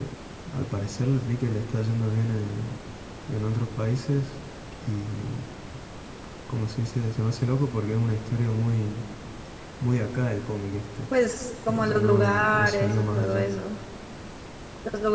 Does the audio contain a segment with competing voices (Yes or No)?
Yes